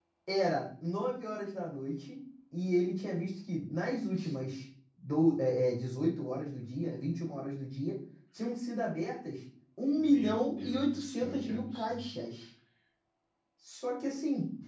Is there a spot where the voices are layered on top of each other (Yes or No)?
Yes